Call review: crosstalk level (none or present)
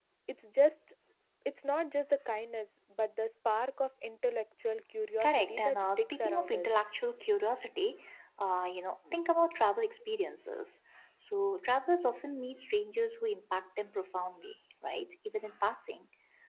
present